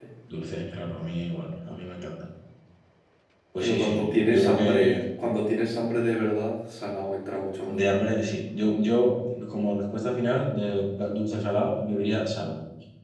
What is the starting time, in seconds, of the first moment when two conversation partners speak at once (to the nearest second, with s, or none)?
4 s